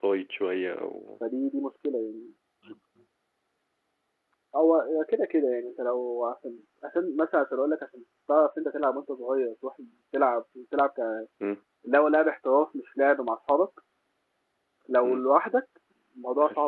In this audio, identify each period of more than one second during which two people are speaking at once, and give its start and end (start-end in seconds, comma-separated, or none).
none